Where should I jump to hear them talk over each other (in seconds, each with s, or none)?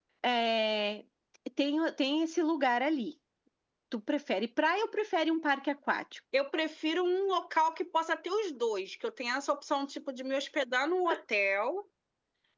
none